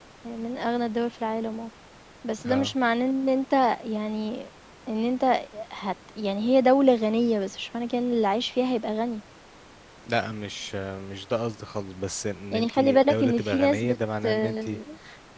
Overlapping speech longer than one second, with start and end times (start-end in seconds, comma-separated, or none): 12.5-14.0